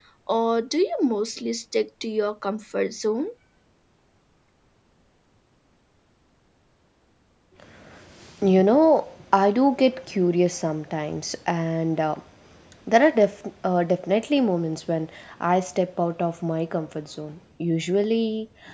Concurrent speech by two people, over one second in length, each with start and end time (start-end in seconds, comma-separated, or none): none